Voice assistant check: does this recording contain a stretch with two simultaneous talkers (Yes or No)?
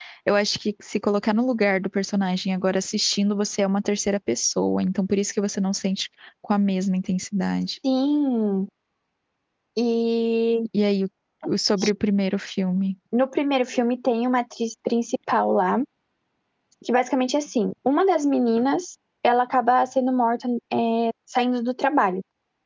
No